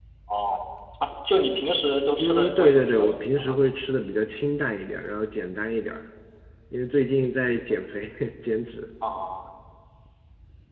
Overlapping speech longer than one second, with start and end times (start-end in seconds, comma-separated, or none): 2.2-3.6